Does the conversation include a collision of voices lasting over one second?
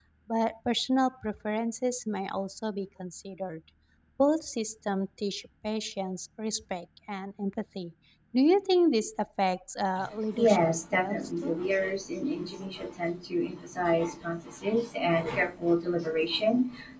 Yes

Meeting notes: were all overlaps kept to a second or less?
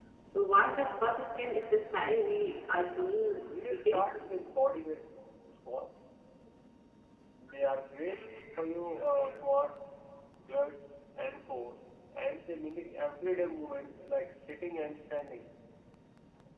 Yes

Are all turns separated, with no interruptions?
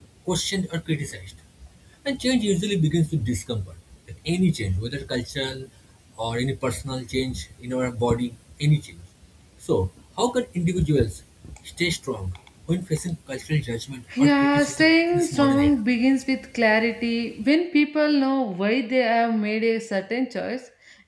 No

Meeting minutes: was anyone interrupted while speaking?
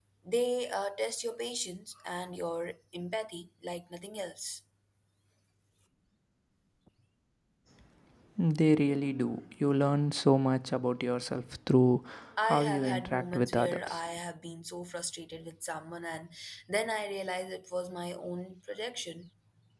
Yes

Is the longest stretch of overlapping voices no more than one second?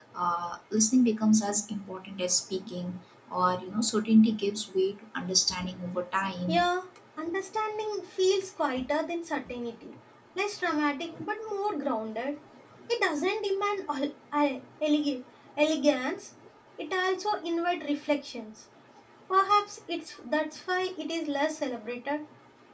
Yes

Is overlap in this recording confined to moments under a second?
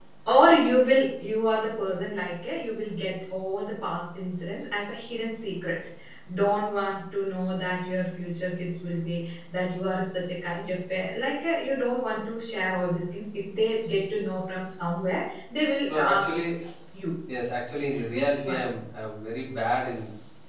Yes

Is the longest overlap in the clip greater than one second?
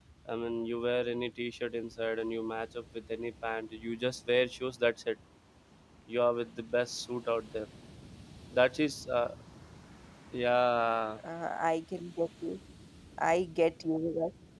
No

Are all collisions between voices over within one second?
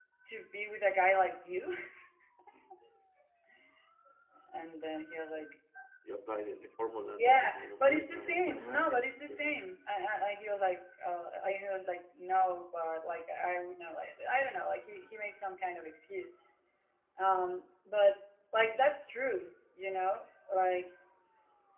No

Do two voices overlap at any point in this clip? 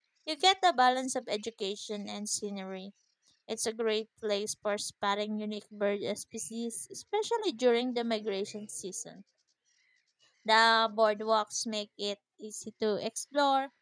No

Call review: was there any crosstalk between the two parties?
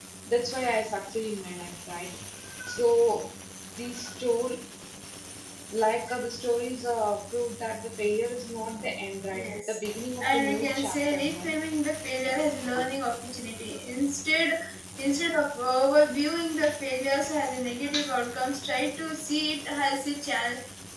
Yes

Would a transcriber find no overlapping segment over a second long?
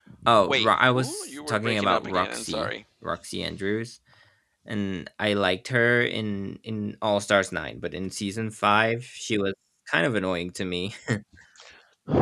No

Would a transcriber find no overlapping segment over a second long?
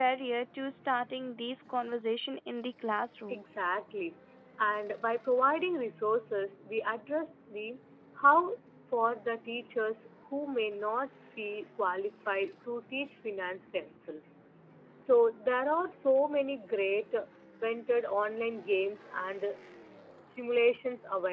Yes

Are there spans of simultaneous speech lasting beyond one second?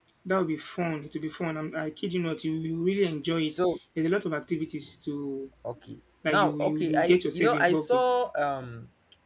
Yes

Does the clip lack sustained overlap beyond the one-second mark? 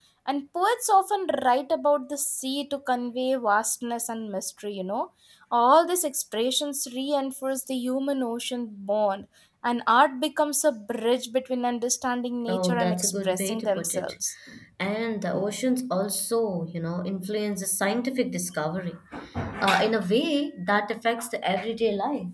No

